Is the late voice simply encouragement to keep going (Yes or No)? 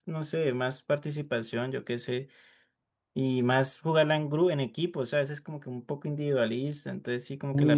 No